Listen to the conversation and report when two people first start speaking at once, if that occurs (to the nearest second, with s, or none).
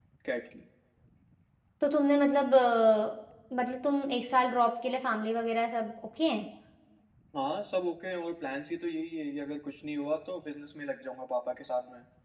none